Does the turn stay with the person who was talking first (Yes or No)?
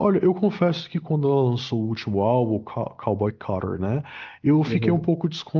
Yes